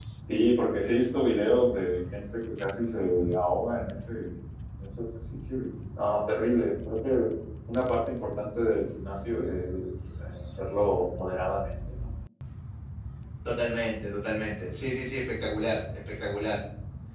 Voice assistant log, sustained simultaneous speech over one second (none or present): none